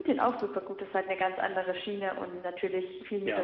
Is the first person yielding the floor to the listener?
No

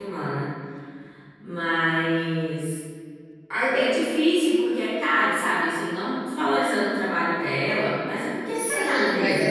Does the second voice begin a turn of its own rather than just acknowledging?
Yes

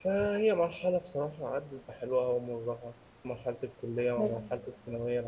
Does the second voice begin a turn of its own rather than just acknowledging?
No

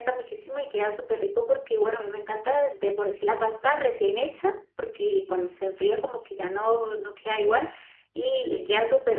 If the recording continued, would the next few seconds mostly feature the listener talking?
No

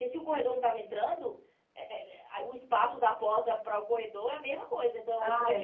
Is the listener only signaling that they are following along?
No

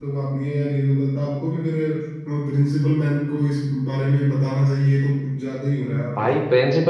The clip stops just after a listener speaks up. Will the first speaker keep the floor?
No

